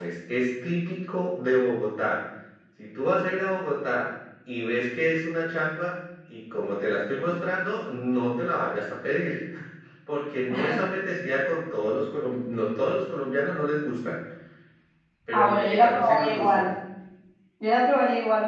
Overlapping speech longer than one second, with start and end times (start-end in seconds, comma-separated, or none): 15.3-16.6